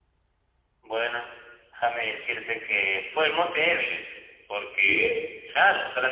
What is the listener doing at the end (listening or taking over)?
listening